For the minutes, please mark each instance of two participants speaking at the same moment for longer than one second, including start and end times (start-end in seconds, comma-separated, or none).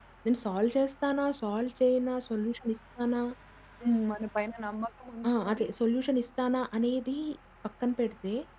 none